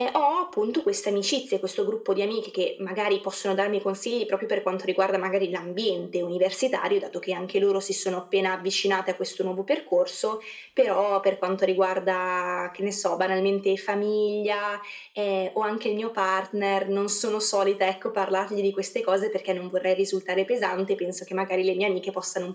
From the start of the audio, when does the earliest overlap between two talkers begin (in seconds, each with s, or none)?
none